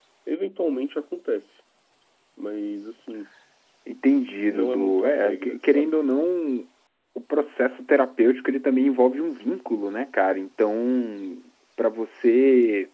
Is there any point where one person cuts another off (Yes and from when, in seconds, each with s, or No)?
Yes, from 4.5 s